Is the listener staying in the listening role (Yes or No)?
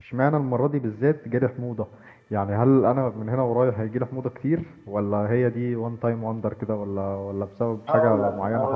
No